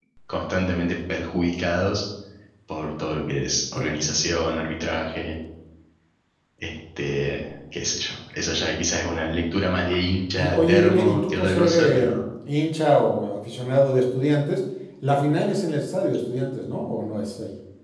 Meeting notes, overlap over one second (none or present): present